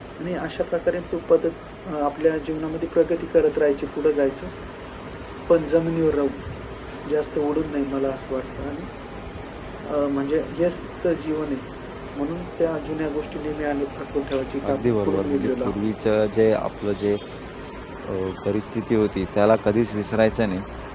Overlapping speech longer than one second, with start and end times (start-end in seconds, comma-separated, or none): 14.6-15.8